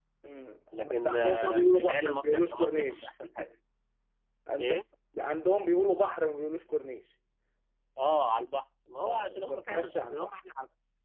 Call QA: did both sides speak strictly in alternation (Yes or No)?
No